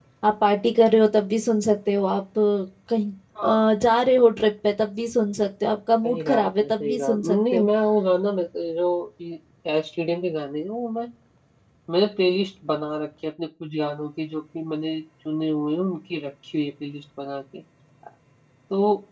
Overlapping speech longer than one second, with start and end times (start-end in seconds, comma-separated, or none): 6.0-7.7